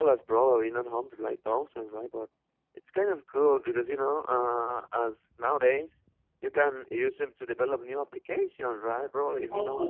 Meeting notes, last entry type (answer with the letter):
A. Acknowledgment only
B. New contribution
A